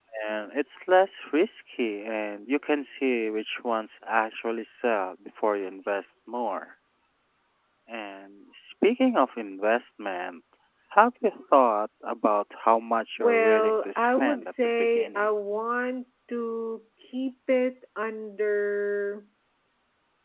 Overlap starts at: 13.2 s

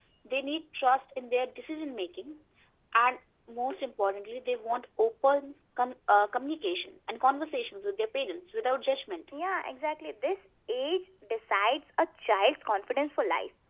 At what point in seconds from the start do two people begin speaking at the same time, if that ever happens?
none

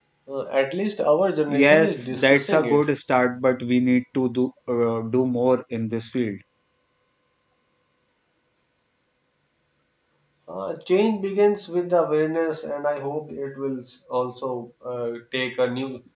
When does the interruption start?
1.5 s

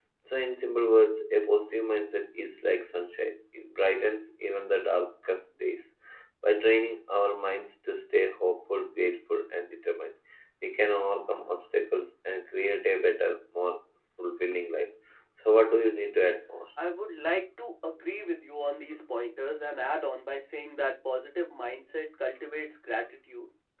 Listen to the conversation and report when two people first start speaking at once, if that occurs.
none

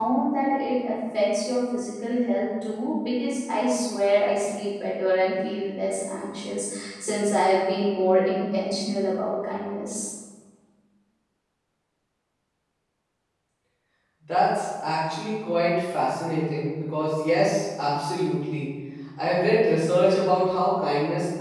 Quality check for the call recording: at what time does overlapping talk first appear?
none

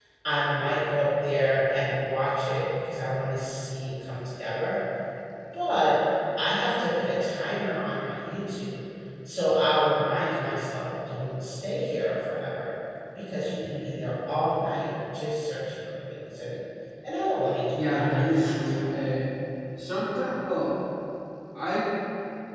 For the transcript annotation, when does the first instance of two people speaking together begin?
17.7 s

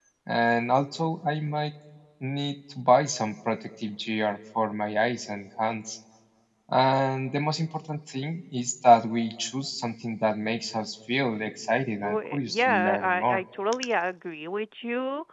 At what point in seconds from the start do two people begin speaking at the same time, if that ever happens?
12.0 s

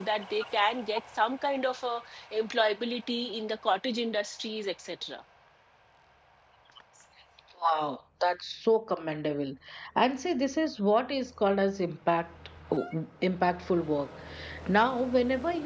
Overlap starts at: none

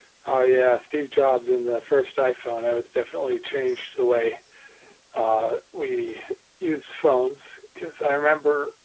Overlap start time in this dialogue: none

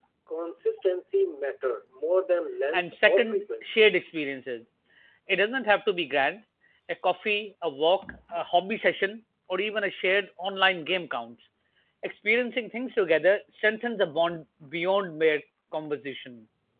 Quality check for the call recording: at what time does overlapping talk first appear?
2.7 s

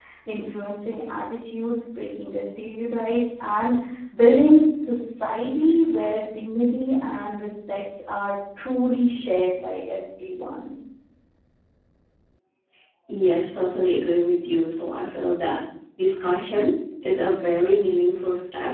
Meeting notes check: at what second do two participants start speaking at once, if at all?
none

